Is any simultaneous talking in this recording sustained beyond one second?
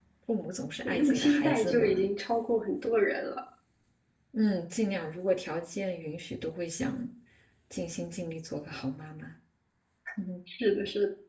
Yes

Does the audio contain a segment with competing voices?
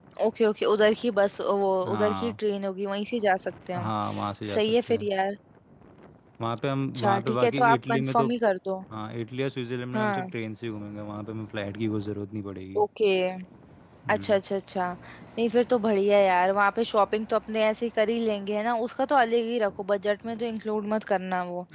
Yes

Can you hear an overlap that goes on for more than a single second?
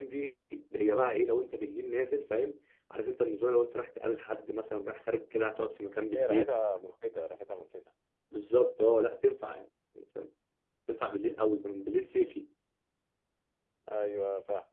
No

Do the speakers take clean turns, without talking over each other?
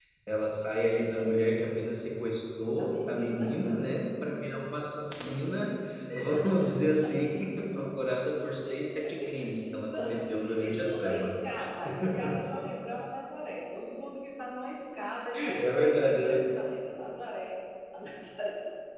No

